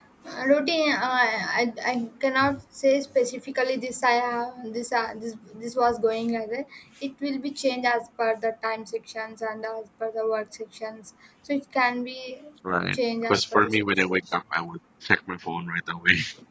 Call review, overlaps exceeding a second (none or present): present